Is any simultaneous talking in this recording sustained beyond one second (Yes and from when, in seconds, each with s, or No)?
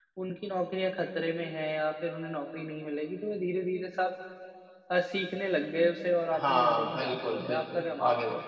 Yes, from 6.3 s